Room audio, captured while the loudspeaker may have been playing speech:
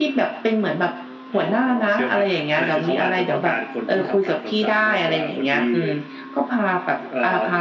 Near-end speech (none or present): none